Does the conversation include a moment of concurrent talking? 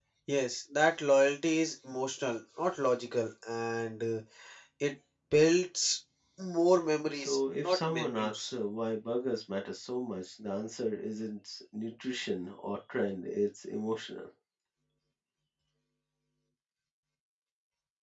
Yes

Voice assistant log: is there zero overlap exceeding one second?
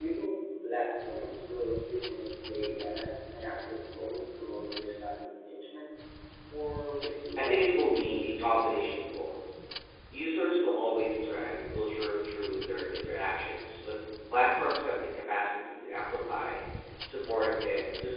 No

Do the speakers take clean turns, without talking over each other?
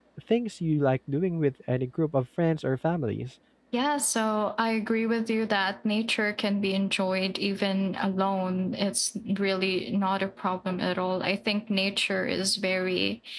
Yes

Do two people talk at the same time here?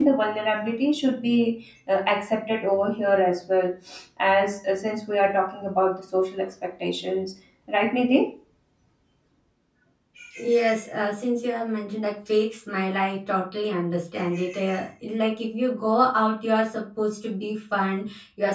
No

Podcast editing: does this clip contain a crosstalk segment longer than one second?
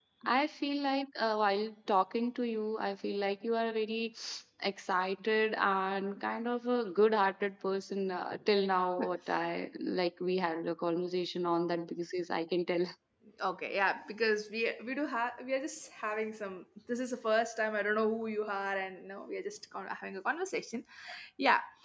No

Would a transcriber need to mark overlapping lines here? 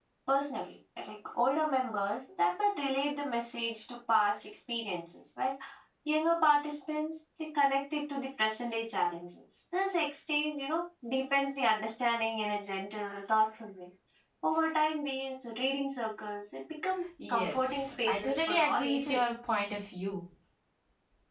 Yes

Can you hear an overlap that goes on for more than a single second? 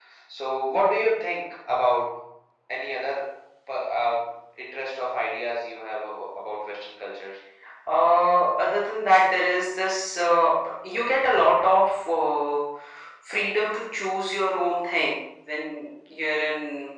No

